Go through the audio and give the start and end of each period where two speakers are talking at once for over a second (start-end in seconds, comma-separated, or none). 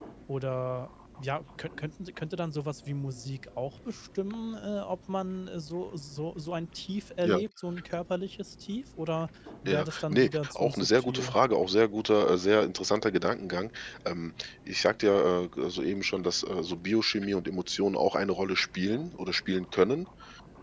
9.7-11.4